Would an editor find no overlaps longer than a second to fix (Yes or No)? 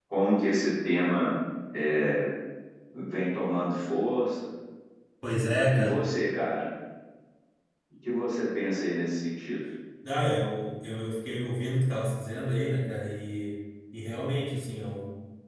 Yes